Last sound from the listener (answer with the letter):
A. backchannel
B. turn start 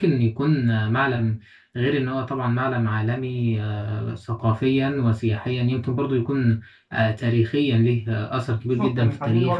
B